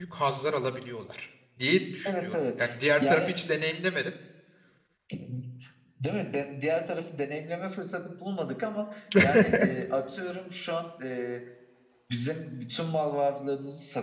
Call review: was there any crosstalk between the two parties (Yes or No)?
Yes